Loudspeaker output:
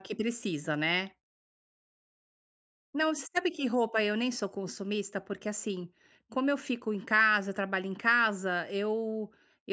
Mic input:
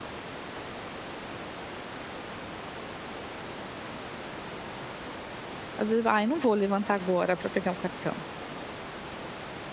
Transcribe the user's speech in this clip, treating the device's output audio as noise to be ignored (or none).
às vezes: "Ai, não vou levantar agora para pegar o cartão",